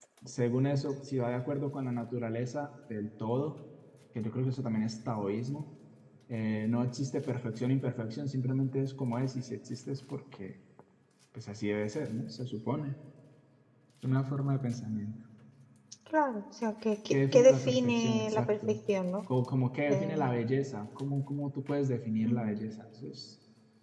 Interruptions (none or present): present